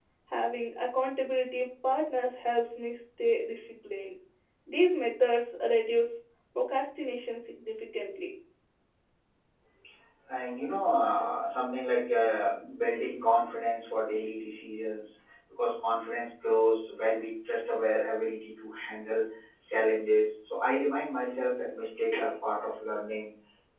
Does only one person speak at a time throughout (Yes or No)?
Yes